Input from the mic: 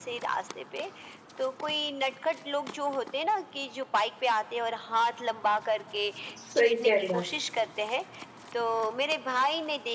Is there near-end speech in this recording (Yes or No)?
Yes